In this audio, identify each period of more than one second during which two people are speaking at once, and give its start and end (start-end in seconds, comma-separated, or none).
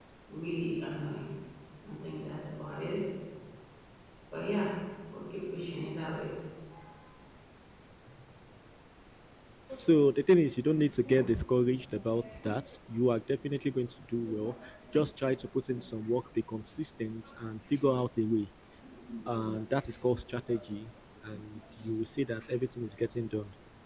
none